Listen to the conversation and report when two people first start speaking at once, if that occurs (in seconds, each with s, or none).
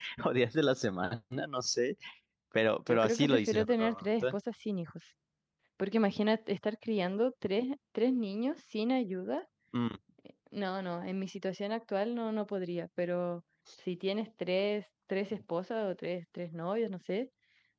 2.9 s